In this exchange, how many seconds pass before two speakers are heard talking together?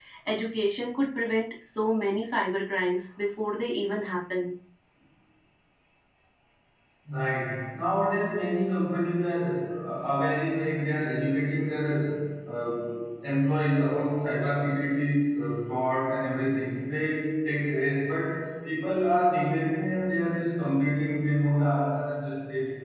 none

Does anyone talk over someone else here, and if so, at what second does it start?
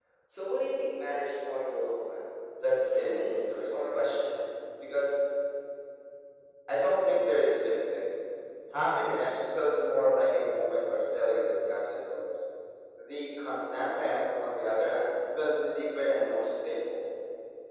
2.9 s

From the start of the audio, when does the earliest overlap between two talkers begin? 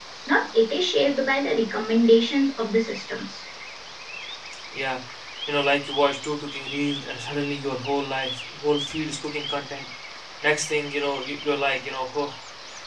none

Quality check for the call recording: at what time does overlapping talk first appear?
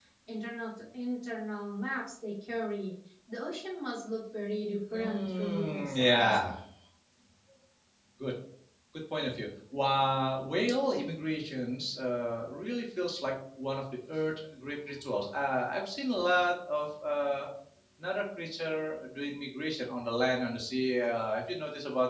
4.9 s

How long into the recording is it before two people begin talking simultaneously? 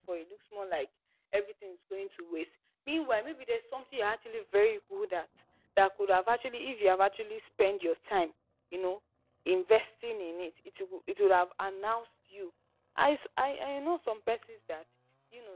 none

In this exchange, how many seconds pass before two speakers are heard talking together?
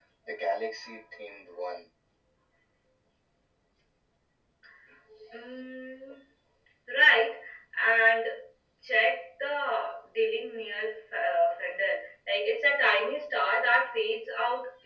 none

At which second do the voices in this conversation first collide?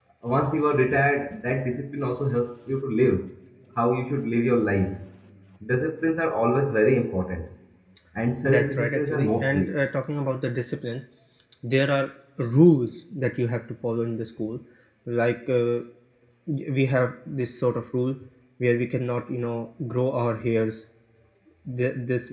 8.4 s

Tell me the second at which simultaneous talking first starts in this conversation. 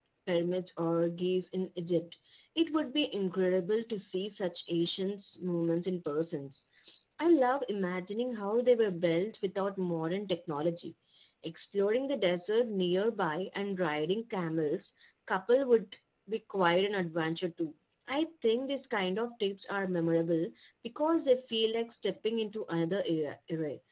none

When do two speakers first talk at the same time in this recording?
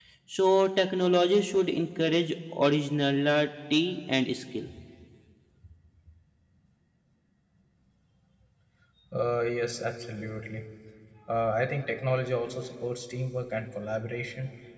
none

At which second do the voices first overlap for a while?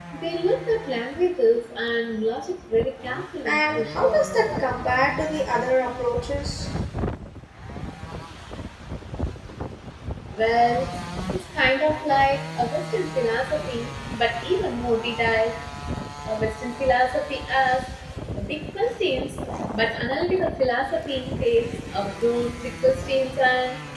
3.4 s

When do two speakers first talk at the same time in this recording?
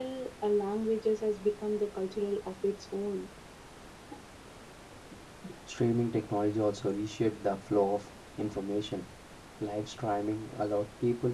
none

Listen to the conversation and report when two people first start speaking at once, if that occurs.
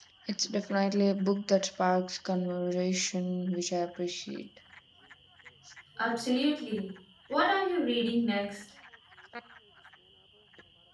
none

